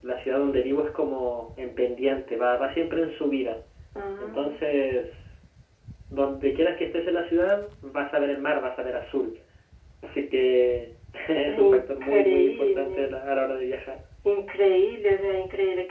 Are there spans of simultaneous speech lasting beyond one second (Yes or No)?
Yes